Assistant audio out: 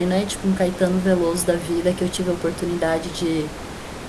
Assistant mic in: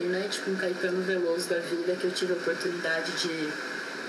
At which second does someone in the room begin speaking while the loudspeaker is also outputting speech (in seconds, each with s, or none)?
none